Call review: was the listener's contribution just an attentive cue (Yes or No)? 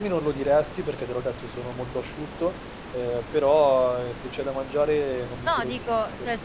No